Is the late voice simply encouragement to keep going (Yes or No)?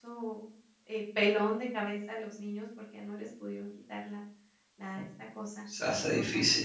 No